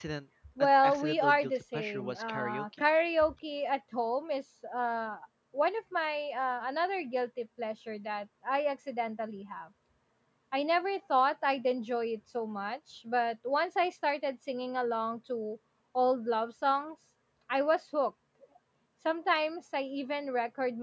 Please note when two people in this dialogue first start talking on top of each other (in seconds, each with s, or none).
0.6 s